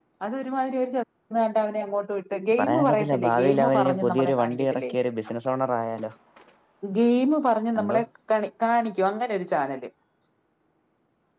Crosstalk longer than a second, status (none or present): present